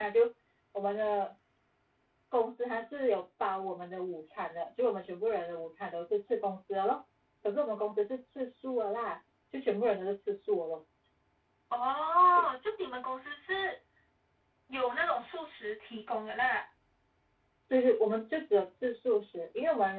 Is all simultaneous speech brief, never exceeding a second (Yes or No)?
Yes